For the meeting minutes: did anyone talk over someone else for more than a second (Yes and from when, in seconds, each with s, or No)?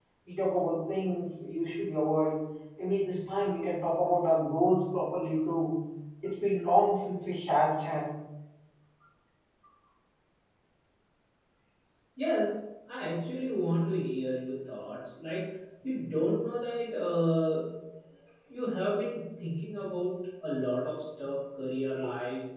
No